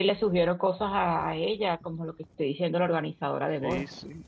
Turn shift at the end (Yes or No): Yes